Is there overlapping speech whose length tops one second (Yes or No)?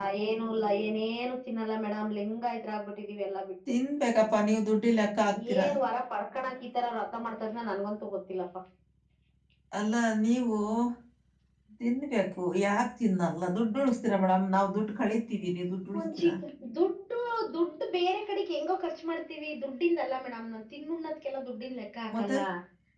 No